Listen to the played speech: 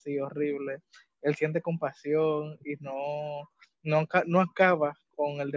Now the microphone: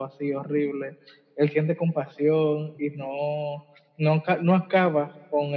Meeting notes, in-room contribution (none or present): none